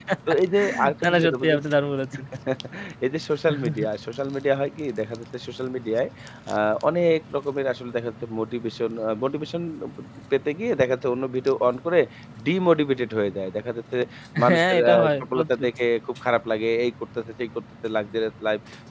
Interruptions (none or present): present